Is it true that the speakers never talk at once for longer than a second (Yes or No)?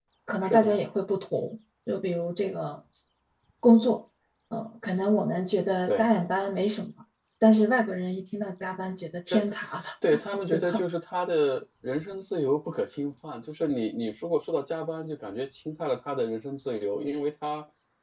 Yes